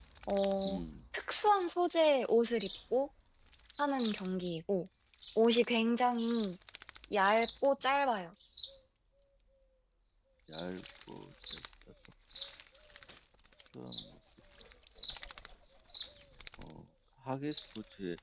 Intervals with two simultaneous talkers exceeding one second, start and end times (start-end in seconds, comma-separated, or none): none